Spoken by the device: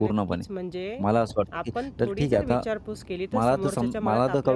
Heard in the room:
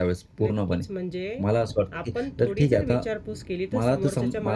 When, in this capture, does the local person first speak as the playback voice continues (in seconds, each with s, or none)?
none